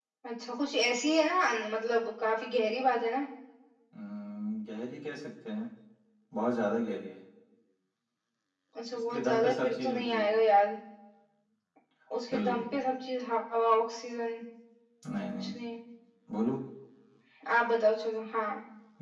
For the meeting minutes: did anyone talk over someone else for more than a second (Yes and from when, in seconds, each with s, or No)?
Yes, from 9.1 s